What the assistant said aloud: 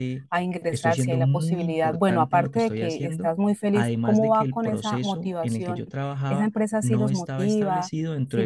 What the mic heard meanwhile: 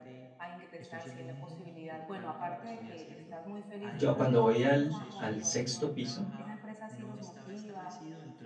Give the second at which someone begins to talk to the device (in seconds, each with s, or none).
3.9 s